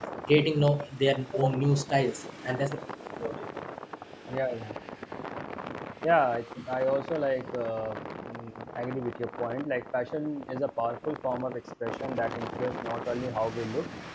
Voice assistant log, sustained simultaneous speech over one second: none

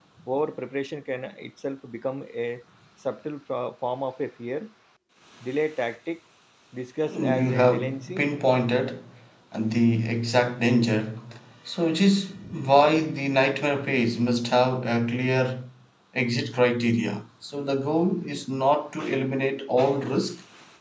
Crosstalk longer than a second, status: present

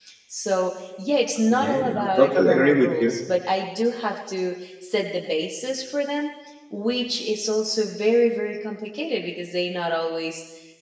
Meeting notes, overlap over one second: present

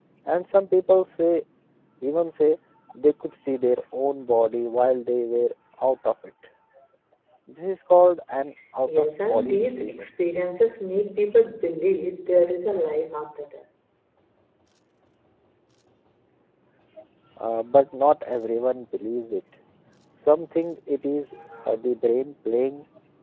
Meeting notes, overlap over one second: present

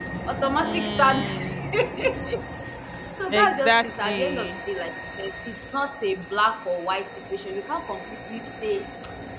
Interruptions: present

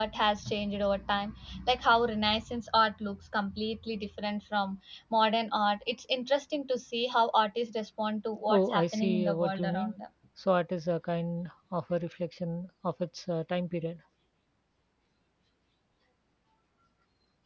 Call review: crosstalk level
present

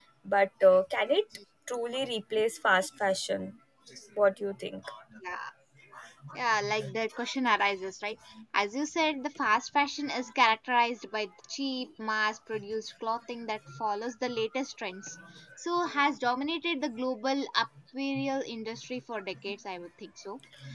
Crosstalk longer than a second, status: none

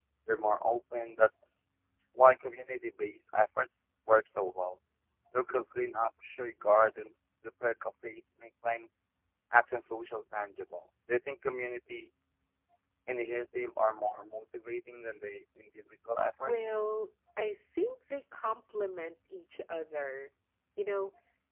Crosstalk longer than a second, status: none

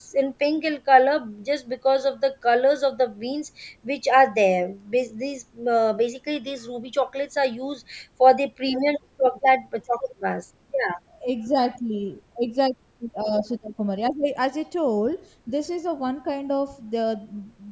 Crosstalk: none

